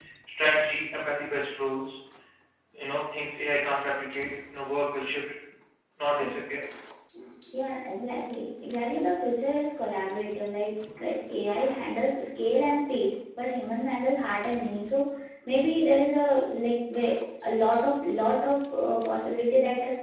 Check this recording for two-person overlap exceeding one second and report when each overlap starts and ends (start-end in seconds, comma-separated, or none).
none